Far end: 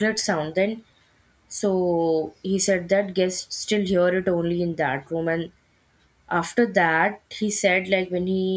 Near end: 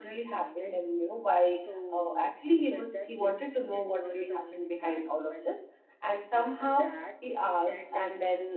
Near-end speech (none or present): present